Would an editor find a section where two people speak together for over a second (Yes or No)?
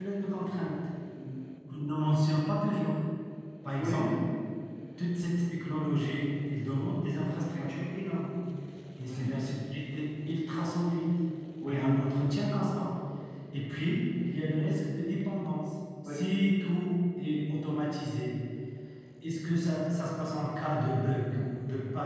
No